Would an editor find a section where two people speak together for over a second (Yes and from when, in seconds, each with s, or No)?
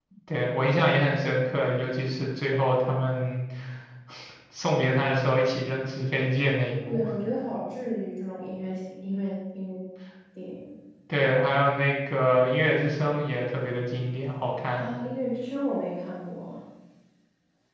No